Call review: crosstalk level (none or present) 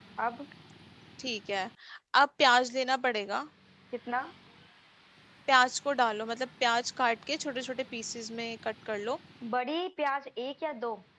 none